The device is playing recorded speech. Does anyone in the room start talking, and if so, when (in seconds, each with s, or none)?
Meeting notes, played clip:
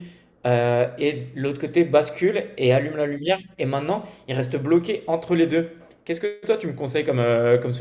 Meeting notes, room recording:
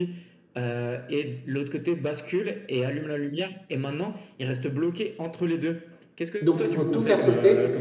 6.4 s